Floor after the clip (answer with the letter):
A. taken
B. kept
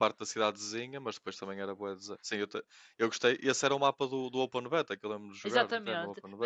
A